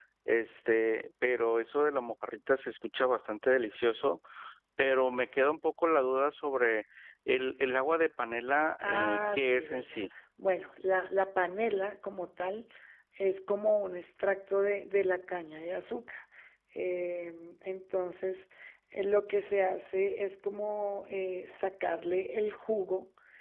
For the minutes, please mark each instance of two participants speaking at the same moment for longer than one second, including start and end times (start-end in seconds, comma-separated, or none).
8.8-10.1